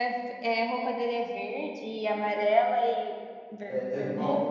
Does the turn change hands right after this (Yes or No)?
Yes